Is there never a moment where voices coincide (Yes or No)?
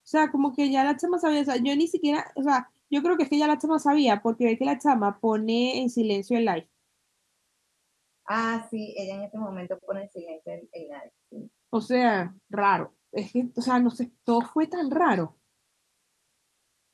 Yes